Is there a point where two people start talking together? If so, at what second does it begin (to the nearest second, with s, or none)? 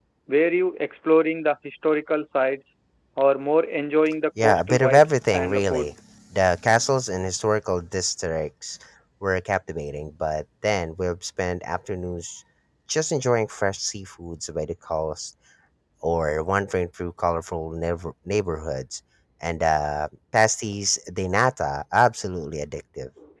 4 s